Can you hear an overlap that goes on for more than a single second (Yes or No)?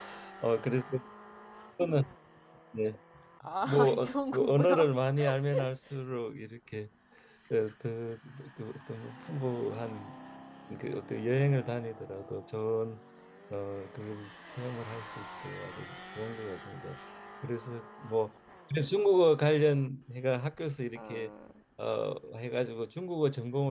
Yes